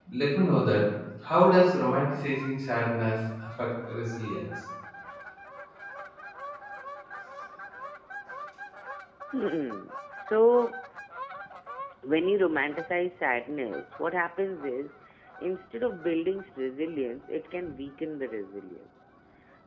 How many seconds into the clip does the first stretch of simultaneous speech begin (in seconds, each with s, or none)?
none